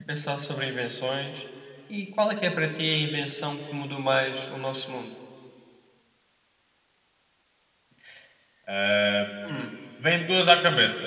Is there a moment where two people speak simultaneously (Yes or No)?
No